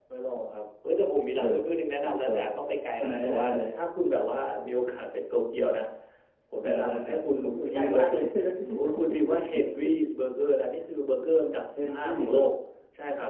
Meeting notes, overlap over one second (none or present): present